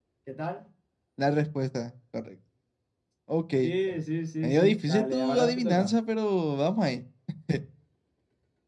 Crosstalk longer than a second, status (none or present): present